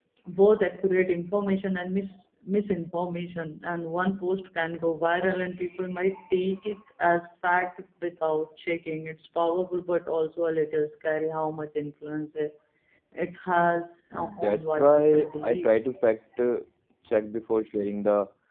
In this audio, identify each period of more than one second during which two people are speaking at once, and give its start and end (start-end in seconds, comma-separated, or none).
14.1-15.7